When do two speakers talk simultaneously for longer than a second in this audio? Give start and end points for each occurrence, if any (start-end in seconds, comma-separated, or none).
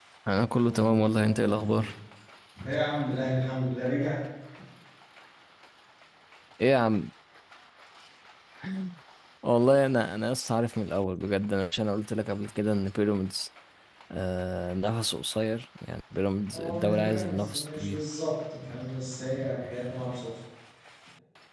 0.7-1.9, 16.5-18.0